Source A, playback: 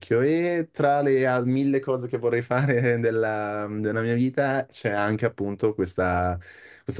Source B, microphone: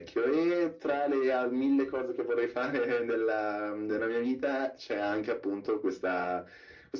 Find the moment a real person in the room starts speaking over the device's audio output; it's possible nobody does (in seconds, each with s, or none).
none